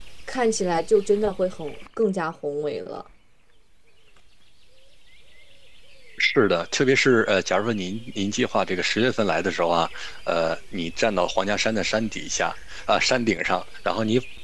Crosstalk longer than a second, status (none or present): none